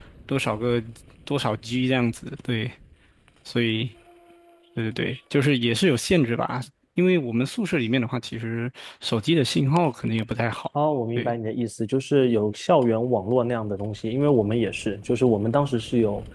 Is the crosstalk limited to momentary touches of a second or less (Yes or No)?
Yes